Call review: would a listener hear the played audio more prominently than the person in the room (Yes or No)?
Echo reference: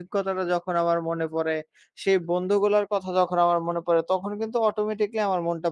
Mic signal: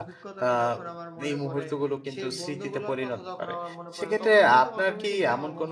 No